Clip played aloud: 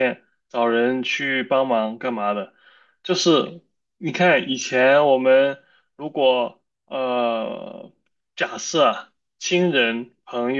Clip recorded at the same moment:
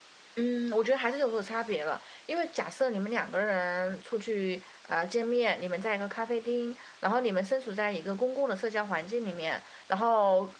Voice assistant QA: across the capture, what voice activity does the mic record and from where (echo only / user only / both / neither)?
user only